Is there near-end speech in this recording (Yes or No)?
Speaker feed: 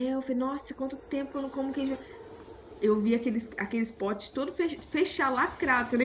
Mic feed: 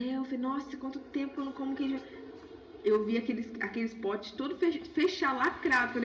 No